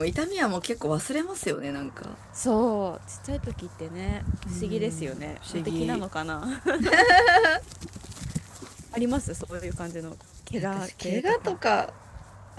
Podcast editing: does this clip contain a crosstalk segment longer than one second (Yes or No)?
Yes